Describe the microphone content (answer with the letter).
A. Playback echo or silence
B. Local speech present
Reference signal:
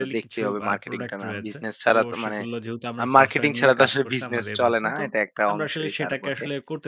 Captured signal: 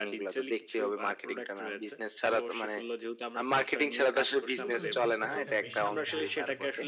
B